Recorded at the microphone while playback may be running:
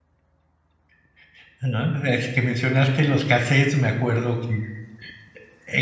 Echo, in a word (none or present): none